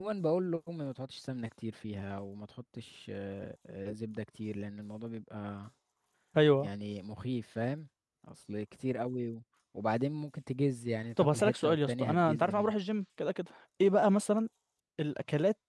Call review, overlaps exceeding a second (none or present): present